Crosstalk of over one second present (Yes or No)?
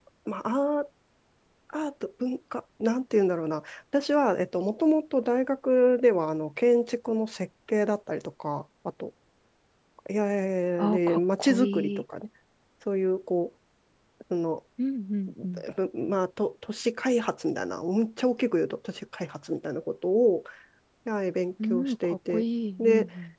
Yes